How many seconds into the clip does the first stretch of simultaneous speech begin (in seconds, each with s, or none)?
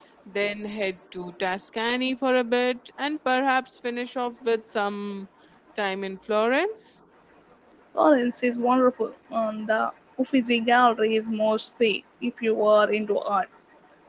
none